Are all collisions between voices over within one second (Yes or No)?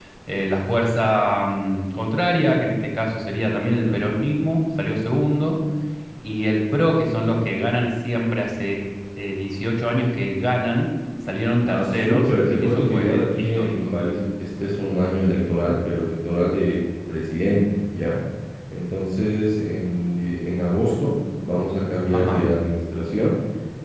No